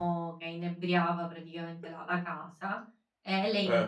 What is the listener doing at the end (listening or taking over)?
listening